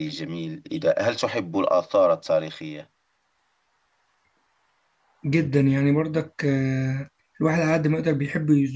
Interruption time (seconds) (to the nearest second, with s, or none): none